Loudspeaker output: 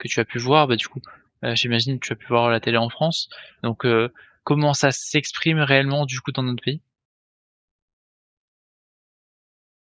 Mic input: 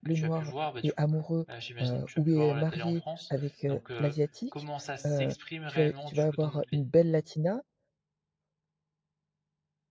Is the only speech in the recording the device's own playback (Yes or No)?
No